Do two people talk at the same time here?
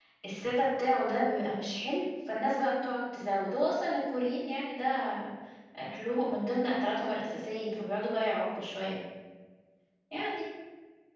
No

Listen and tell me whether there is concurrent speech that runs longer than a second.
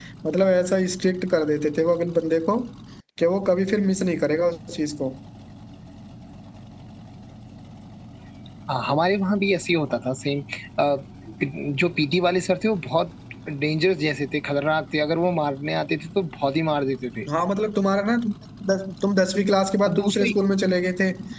No

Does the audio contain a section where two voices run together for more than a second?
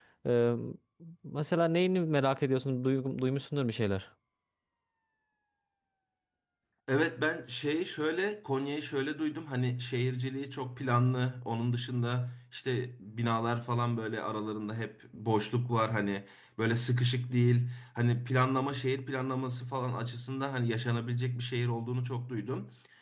No

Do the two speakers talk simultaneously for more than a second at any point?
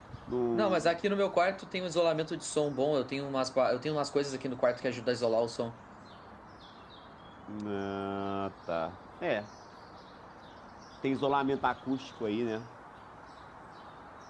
No

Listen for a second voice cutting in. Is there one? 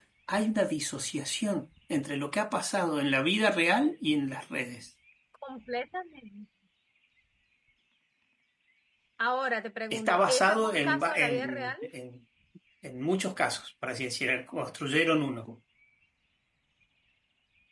Yes, from 9.9 s

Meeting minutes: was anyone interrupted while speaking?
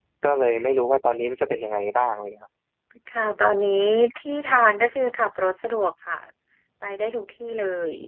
No

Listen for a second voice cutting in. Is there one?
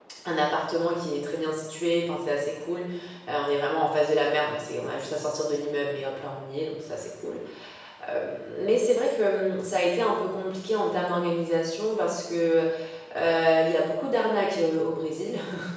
No

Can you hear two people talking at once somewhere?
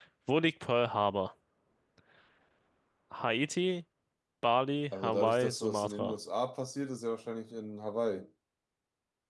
Yes, from 4.9 s

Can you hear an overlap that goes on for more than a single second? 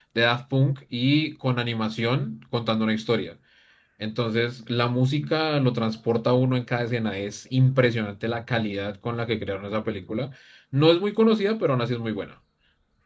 No

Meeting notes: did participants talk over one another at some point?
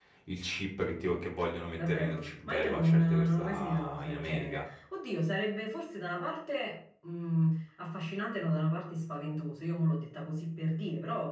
Yes, from 1.8 s

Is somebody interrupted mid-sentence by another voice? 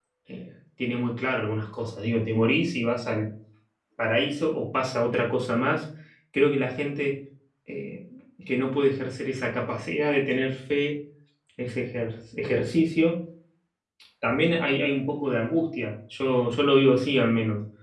No

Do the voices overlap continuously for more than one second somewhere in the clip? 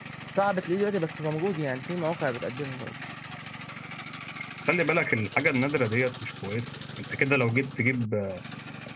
No

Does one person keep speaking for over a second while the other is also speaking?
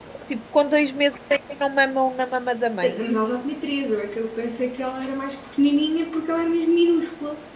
No

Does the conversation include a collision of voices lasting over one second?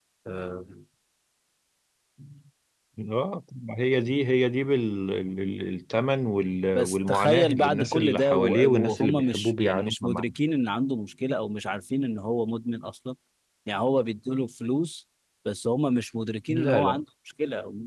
Yes, from 6.8 s

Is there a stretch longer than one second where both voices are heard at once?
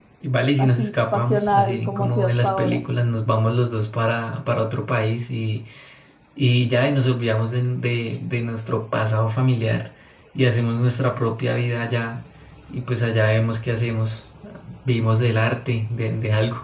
Yes, from 0.6 s

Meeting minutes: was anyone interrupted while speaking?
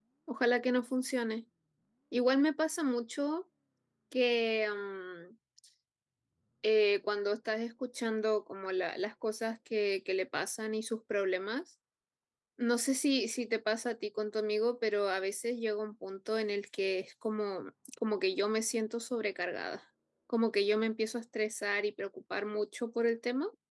No

